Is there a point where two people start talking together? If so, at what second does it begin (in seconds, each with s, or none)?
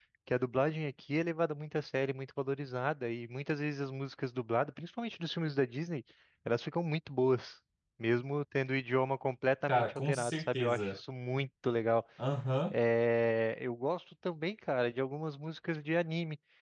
9.7 s